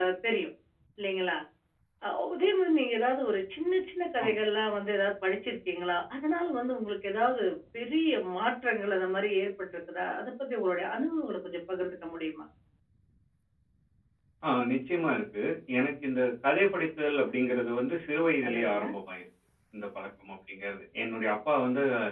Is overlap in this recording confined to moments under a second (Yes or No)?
Yes